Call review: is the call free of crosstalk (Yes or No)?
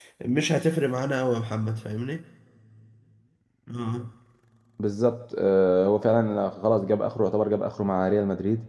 Yes